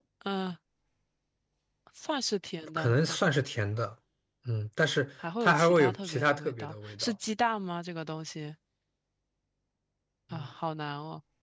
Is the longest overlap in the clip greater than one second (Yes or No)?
Yes